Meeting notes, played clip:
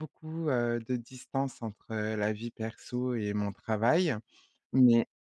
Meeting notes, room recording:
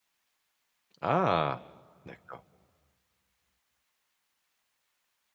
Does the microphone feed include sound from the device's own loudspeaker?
No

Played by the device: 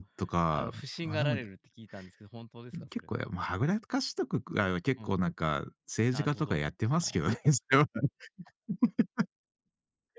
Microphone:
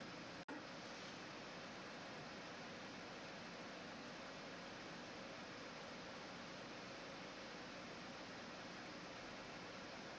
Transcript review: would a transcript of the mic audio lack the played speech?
Yes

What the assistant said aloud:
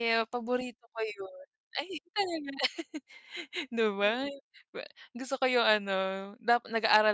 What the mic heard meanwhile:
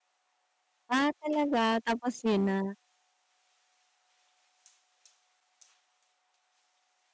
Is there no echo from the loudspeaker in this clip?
Yes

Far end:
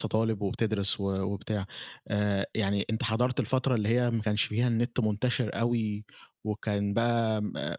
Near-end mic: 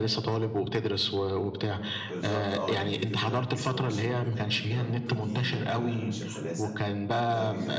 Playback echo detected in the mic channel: Yes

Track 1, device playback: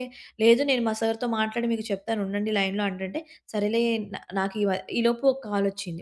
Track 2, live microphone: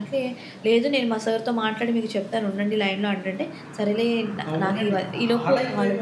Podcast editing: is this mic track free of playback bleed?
No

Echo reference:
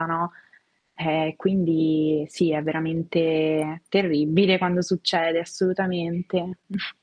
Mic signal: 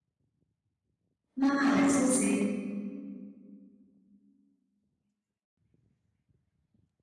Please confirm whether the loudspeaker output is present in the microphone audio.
No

